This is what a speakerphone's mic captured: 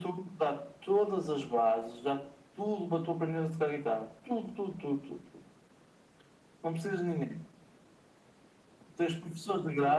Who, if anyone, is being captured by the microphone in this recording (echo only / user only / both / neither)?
echo only